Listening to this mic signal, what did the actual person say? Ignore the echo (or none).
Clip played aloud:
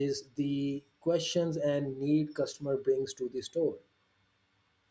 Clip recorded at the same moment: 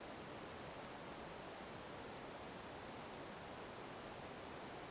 none